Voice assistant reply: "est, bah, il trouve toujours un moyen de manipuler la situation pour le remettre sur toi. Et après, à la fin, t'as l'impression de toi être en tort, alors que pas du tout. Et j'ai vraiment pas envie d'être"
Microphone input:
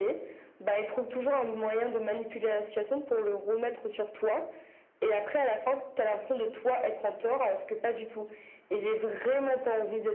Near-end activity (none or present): none